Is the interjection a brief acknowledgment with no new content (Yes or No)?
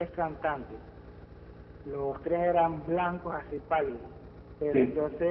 Yes